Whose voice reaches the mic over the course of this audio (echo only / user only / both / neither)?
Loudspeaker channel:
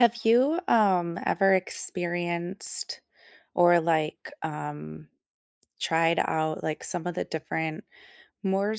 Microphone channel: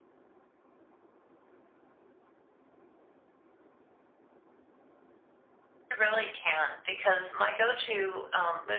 user only